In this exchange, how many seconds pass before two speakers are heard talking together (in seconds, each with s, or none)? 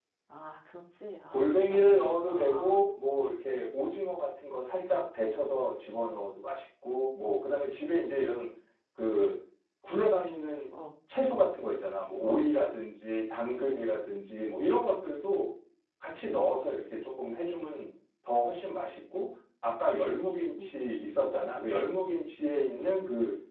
1.3 s